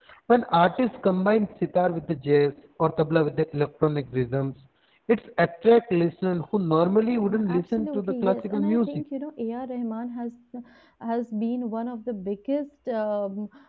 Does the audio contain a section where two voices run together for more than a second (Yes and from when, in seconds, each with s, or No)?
Yes, from 7.3 s